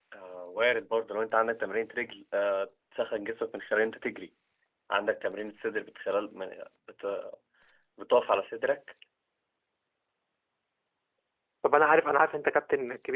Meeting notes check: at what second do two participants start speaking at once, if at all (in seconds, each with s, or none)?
none